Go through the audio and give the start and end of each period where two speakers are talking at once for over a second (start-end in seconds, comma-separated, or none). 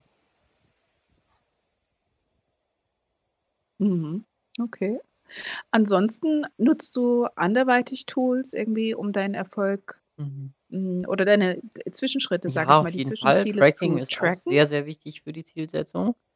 12.5-14.6